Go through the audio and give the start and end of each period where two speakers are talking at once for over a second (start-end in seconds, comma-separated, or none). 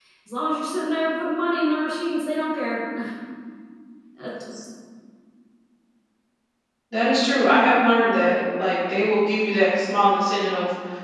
none